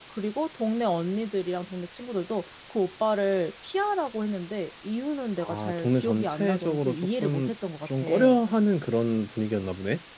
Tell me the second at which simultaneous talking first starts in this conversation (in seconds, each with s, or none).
5.4 s